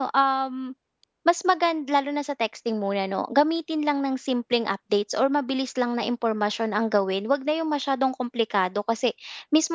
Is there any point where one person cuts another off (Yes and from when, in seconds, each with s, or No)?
No